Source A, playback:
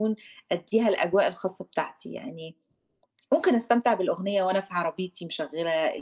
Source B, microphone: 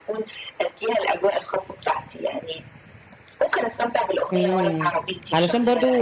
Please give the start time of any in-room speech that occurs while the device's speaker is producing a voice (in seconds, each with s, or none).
4.3 s